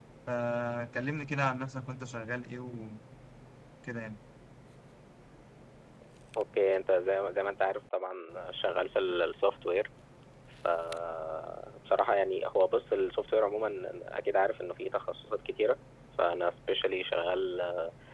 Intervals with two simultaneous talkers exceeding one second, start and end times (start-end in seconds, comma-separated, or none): none